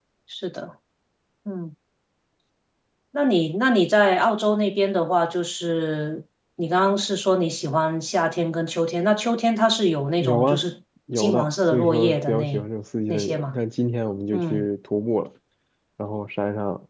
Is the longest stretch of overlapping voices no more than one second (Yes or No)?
No